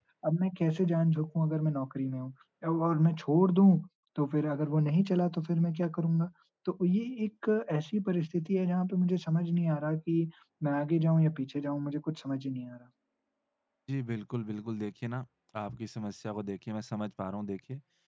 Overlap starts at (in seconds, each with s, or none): none